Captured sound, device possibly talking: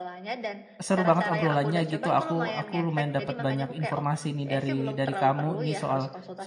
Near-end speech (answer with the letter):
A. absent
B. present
B